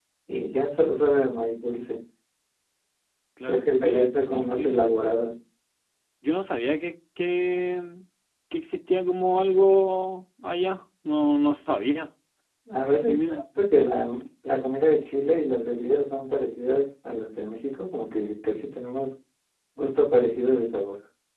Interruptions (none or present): present